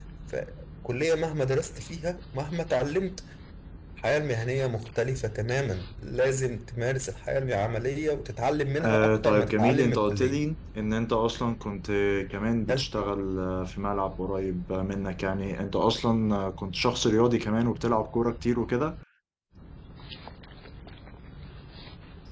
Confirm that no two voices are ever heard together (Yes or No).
No